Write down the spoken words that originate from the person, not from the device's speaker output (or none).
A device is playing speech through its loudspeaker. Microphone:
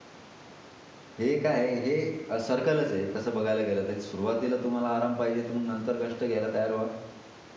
हे काय आहे? हे सर्कलच आहे, तसं बघायला गेलं तर. सुरुवातीला तुम्हाला आराम पाहिजे तर मग नंतर कष्ट घ्यायला तयार व्हा